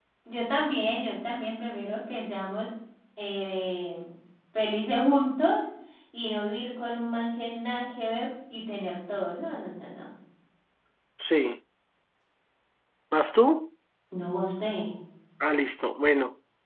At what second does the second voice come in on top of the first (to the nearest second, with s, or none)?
none